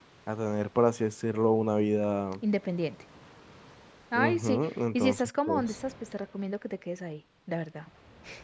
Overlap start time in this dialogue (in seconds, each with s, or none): 4.2 s